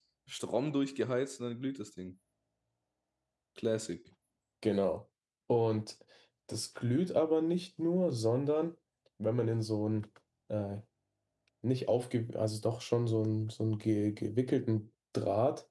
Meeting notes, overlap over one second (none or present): none